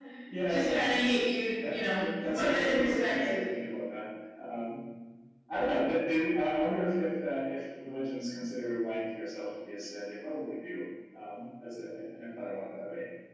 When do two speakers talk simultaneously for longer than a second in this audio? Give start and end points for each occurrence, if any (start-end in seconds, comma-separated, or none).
1.7-3.4